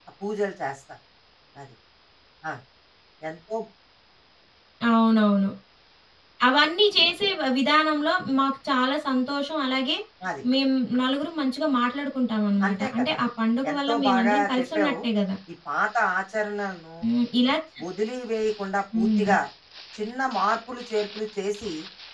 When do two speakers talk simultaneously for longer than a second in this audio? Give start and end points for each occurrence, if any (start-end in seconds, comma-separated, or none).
13.7-14.9